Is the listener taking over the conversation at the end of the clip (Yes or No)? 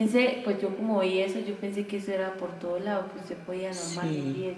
No